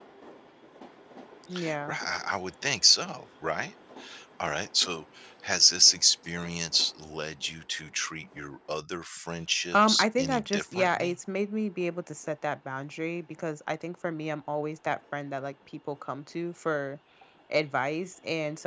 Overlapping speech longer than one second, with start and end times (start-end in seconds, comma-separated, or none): 9.7-11.2